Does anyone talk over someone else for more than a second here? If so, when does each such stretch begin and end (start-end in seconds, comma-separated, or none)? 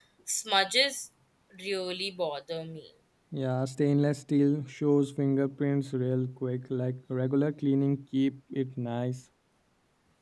none